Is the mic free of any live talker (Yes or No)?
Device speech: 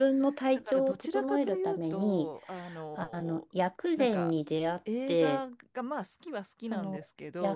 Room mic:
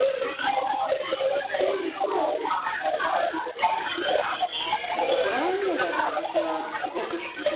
No